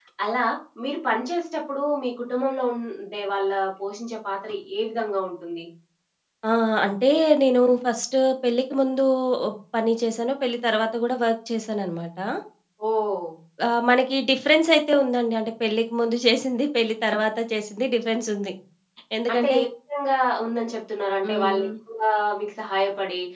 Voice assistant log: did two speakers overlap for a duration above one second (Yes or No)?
No